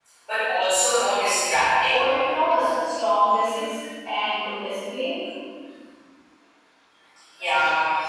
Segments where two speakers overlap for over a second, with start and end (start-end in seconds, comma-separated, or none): none